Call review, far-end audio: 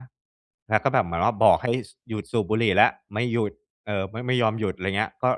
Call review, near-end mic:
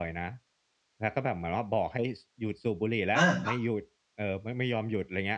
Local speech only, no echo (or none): อาครับ